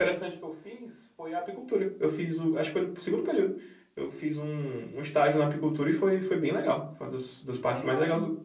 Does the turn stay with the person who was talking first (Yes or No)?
No